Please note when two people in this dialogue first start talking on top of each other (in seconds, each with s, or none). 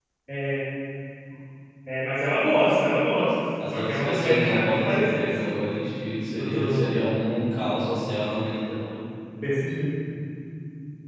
3.7 s